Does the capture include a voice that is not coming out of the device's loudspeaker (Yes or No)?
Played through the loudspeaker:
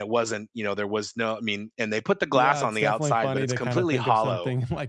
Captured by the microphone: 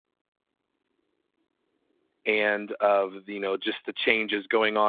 Yes